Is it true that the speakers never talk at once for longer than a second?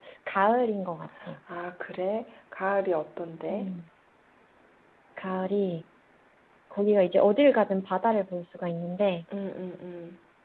Yes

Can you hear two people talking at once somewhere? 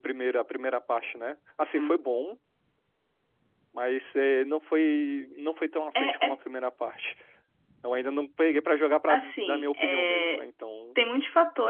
Yes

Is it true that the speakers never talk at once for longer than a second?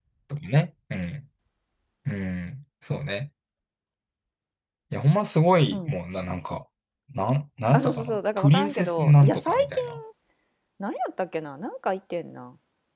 No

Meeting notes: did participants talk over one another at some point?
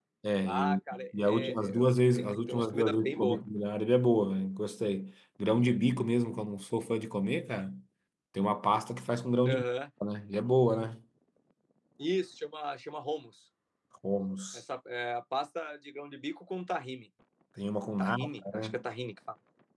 Yes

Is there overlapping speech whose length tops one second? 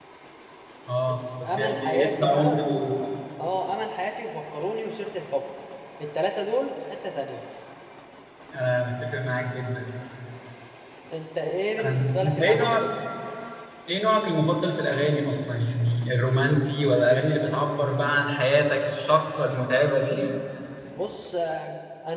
Yes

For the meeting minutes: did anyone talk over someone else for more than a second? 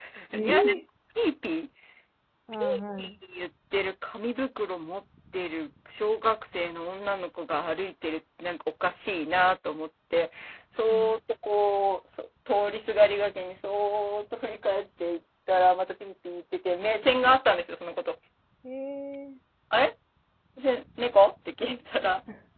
No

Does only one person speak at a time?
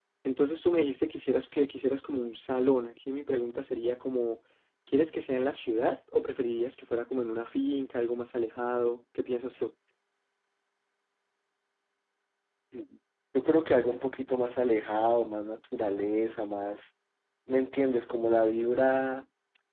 Yes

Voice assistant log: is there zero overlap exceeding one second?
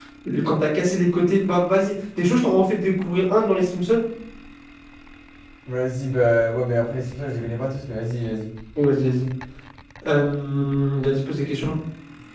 Yes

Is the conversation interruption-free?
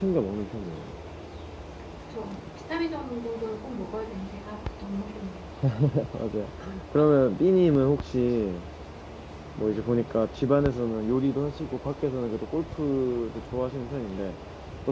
Yes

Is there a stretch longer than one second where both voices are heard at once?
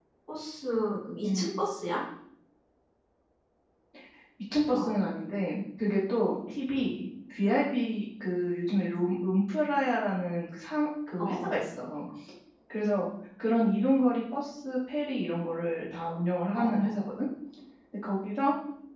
No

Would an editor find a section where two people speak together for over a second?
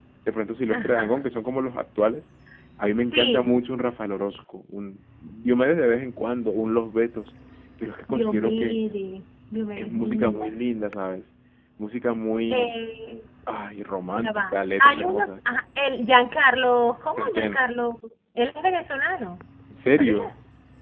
Yes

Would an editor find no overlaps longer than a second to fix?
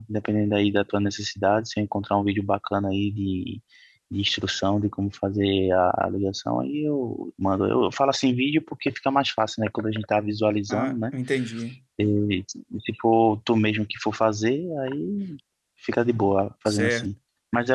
Yes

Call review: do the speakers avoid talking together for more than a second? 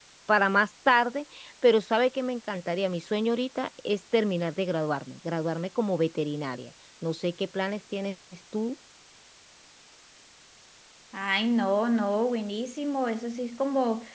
Yes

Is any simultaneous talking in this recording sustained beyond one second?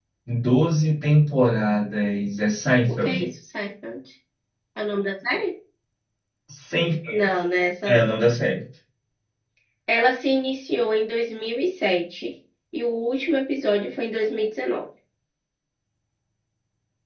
No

